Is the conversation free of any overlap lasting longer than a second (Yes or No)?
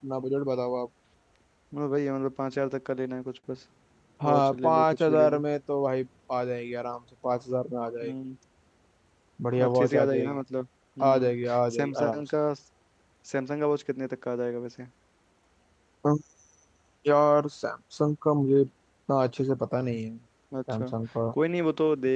No